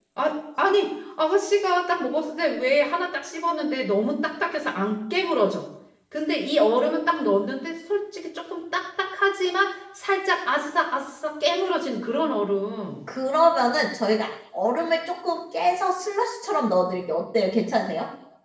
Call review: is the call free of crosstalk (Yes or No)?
Yes